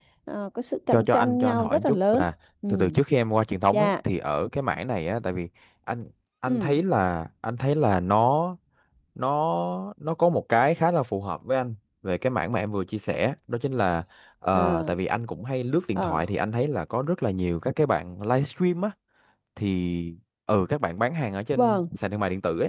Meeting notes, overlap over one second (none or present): present